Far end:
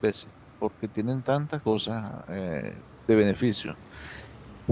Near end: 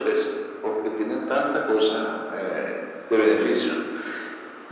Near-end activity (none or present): none